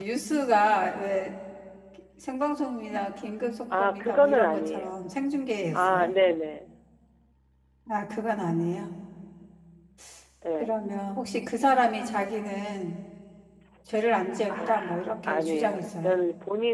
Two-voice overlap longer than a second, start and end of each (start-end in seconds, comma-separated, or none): 3.8-5.0, 14.5-16.2